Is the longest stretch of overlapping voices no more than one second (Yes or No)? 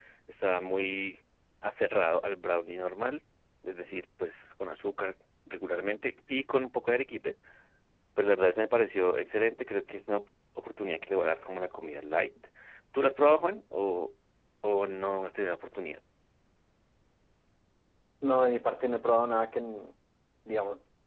Yes